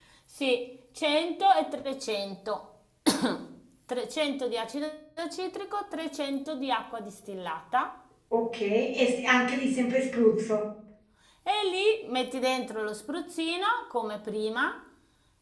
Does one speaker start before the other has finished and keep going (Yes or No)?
No